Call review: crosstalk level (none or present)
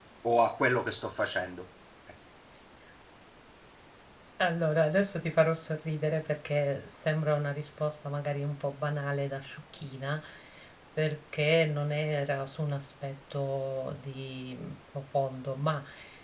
none